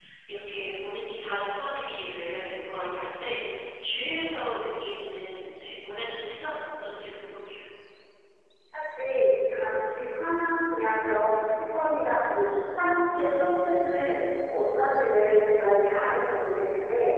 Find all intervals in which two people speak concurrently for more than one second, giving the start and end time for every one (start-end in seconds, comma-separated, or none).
none